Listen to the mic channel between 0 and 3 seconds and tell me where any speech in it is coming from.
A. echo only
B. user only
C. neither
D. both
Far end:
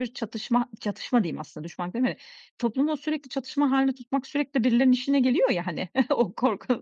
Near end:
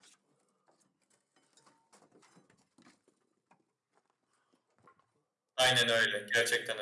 C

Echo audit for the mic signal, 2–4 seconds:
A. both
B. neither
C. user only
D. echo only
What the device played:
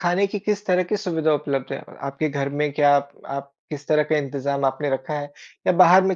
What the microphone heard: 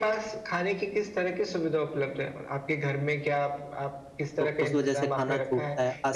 D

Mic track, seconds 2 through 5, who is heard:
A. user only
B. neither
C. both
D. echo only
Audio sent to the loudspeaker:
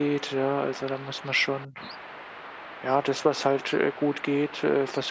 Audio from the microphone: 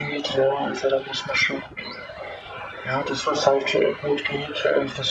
D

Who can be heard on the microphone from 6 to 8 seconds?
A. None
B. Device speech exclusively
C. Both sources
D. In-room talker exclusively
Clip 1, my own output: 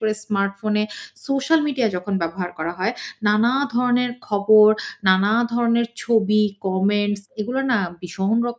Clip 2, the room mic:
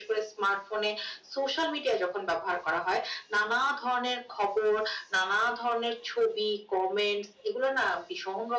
B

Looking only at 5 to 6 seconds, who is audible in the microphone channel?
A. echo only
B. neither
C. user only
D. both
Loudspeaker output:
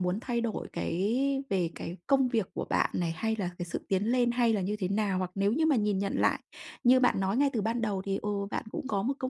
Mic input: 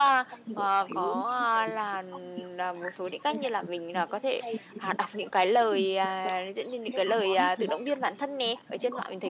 D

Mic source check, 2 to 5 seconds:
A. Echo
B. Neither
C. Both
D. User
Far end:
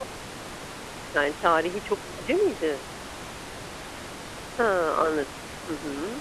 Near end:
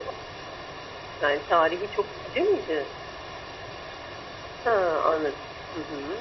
A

